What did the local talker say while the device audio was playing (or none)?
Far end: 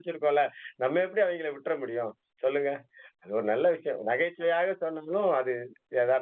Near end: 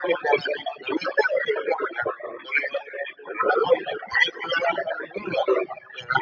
none